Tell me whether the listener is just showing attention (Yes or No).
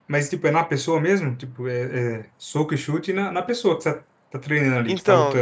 No